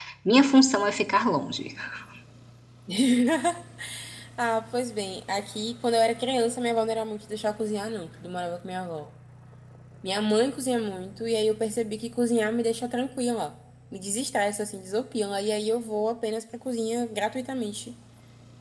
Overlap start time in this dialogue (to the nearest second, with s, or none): none